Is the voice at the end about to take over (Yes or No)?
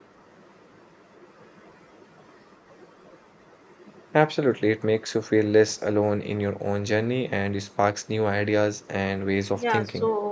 Yes